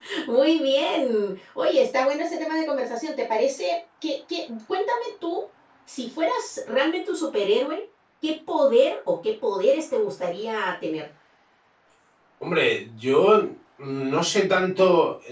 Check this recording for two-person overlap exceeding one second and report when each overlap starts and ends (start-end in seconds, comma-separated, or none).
none